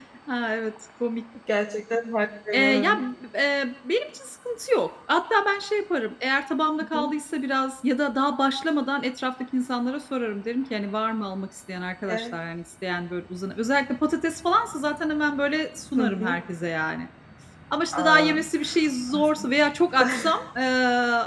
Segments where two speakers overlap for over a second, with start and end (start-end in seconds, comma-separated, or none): none